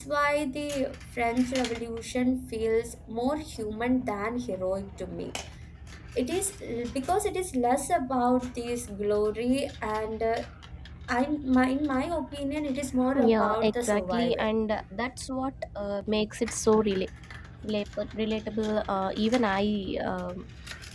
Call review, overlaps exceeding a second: present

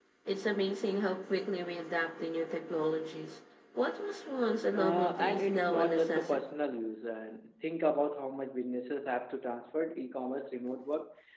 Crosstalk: present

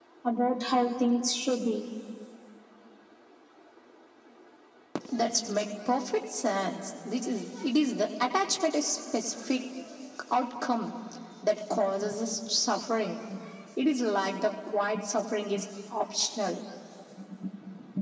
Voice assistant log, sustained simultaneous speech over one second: none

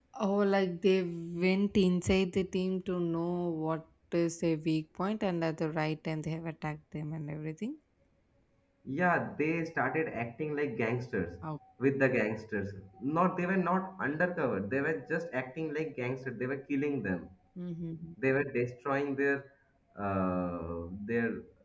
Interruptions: none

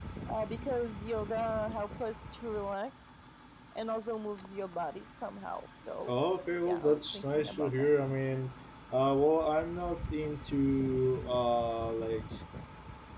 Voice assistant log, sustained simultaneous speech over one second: present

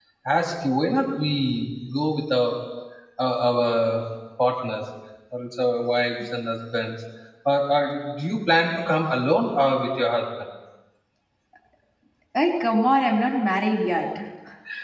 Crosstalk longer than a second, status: none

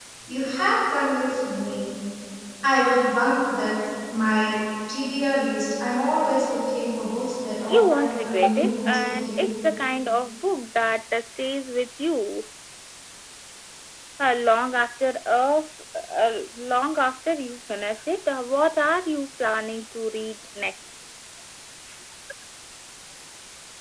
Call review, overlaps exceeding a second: present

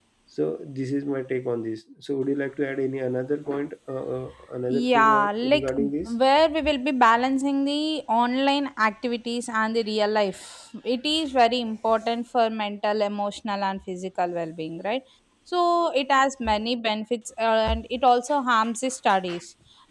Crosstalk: present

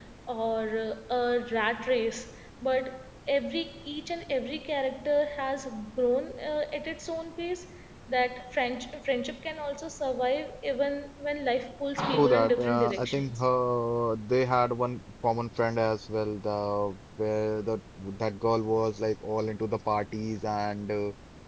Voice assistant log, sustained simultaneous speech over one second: present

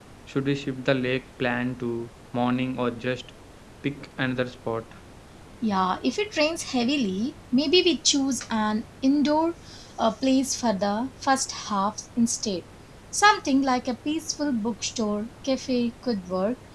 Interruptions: none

